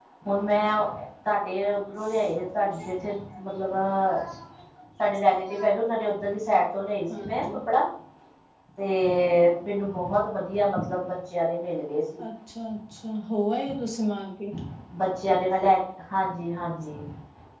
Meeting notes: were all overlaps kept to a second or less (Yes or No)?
Yes